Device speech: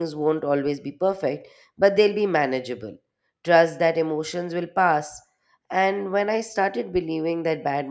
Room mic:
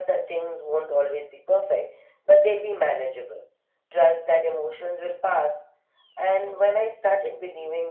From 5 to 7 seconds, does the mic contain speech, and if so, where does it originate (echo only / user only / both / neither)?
echo only